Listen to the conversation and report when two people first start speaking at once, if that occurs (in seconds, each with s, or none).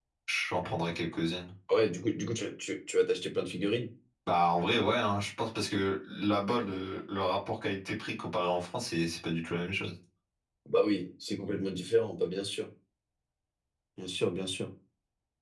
none